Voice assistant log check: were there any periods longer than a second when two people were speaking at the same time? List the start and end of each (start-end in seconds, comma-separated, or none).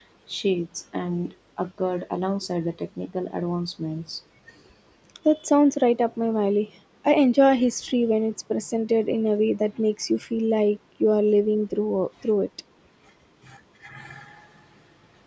none